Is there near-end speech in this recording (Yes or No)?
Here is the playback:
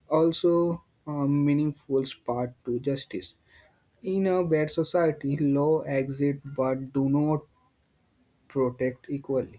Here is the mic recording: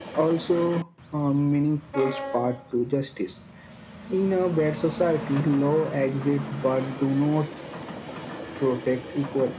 No